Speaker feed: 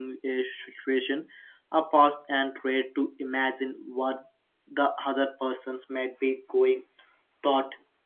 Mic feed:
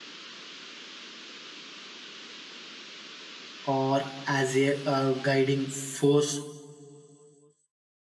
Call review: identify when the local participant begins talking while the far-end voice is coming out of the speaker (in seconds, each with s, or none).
3.6 s